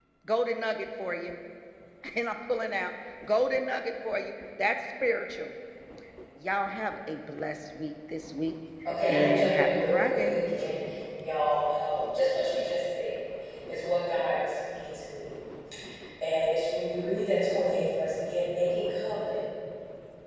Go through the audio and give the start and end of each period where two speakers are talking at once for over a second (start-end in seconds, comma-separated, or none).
9.1-10.4